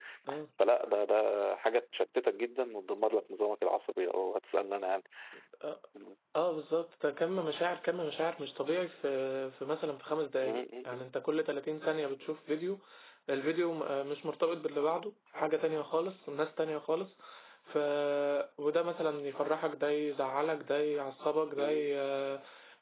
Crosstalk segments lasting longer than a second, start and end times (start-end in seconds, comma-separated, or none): none